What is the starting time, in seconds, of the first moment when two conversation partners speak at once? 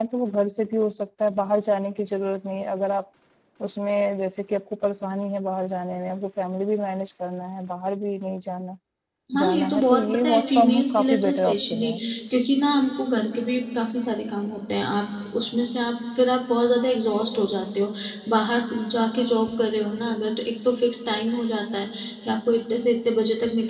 9 s

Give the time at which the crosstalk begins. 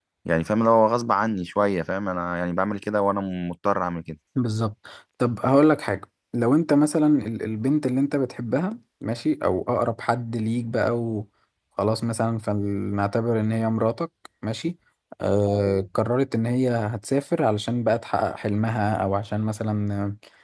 none

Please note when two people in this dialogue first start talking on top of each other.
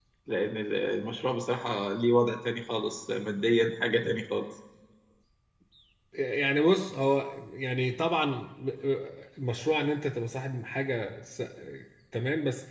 none

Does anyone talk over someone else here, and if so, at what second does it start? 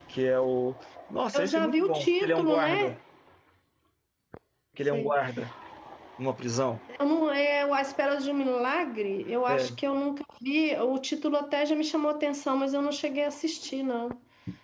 1 s

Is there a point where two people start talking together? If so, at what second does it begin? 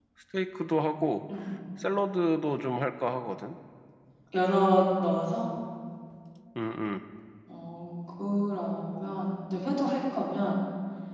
none

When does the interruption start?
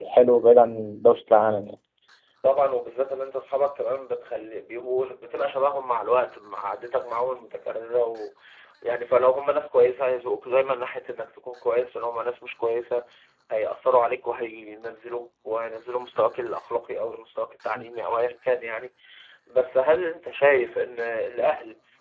none

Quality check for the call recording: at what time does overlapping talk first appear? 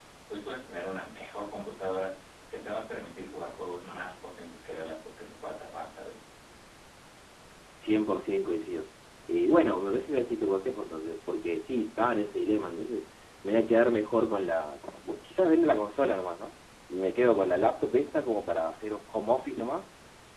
none

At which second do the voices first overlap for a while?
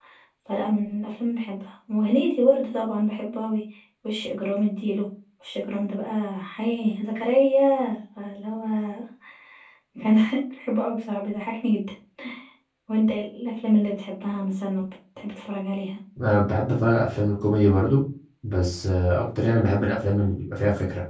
none

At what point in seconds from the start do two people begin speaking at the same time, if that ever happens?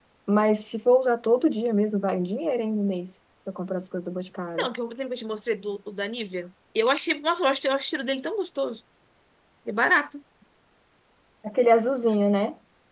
none

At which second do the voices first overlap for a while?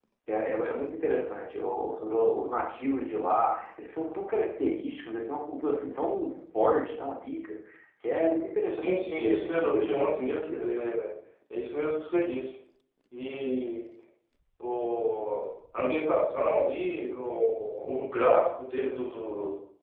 9 s

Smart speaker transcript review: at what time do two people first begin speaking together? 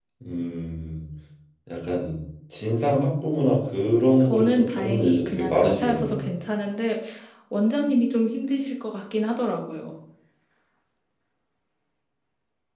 4 s

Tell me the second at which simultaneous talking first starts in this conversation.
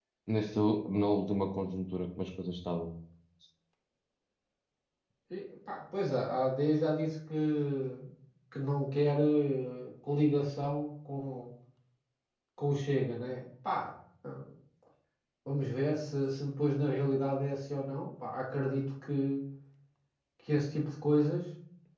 none

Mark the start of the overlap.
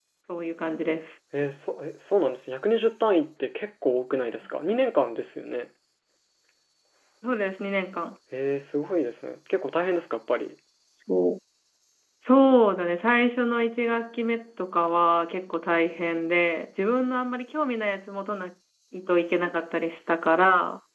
none

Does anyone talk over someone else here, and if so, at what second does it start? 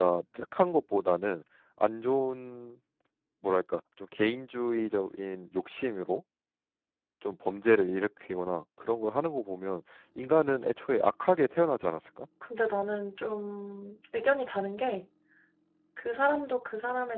none

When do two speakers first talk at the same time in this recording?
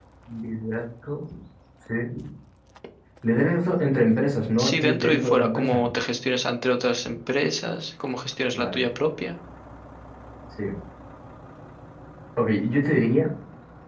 5 s

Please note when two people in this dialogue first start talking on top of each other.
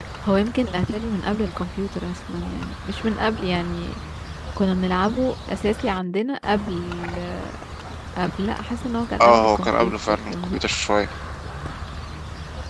9 s

